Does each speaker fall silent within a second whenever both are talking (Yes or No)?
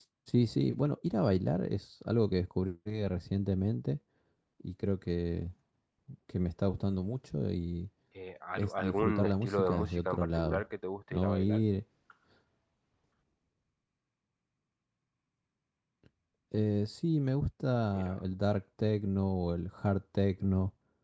No